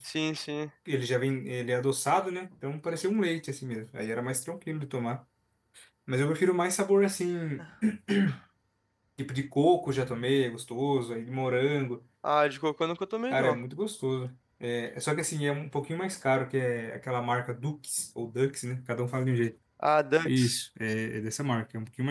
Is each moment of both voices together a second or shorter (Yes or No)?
Yes